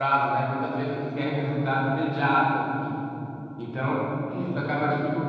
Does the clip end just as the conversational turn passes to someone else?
No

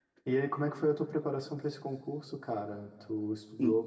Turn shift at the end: No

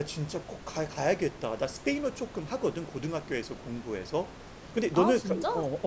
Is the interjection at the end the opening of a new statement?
No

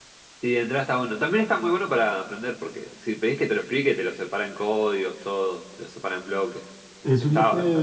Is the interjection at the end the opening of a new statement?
Yes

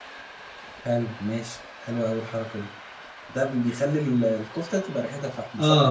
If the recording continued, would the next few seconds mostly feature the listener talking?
Yes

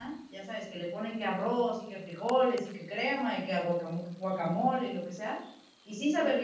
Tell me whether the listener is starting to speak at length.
No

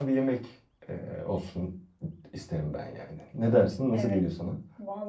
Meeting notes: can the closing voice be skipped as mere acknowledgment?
No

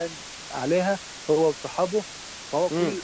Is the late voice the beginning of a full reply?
No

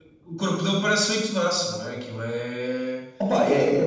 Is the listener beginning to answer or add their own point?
Yes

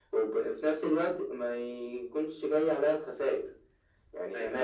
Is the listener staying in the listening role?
Yes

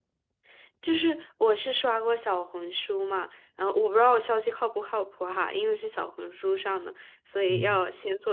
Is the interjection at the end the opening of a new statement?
No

